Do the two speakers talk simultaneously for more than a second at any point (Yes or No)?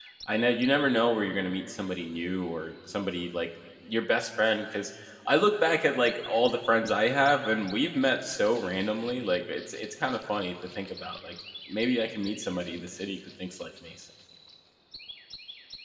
No